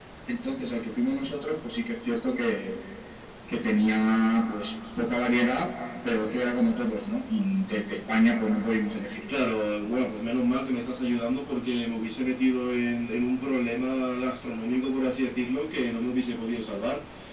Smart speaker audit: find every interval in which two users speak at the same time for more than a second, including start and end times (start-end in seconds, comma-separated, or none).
none